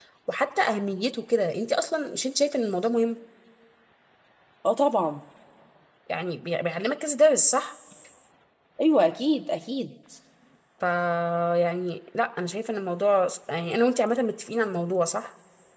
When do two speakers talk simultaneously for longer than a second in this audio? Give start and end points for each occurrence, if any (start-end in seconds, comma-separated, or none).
none